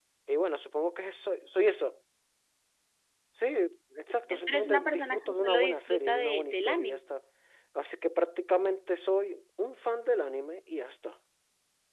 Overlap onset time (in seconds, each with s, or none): 4.3 s